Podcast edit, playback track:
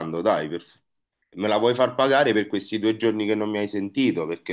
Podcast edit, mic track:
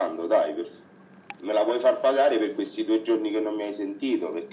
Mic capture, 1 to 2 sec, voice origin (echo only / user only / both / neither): echo only